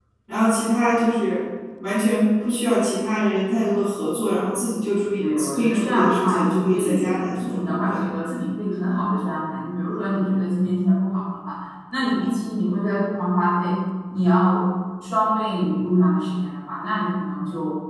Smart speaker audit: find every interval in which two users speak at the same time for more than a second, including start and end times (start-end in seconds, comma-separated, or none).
5.2-8.0